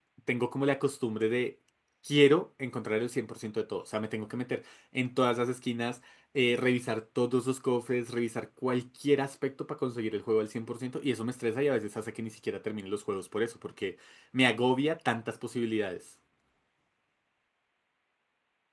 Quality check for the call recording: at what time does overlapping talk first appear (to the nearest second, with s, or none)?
none